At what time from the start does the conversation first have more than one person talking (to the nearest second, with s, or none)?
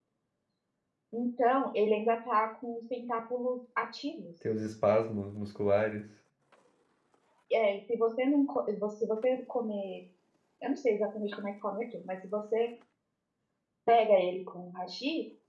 none